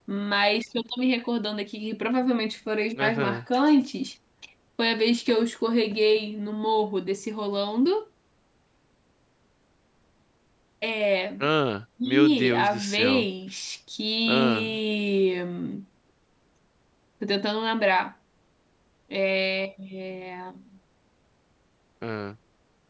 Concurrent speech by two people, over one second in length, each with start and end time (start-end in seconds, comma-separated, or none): 12.0-13.3